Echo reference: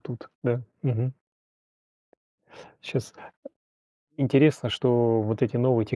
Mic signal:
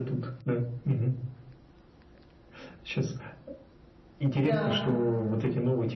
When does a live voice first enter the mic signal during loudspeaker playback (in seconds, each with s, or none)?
4.4 s